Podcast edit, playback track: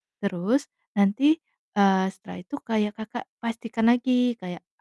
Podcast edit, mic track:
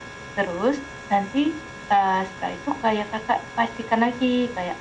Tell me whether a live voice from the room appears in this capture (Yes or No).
No